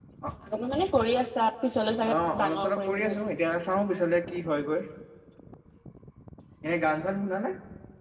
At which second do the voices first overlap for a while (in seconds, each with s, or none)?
2.0 s